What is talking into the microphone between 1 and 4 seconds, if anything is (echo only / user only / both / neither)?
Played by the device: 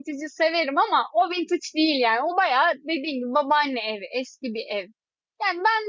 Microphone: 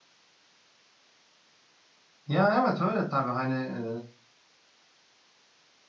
user only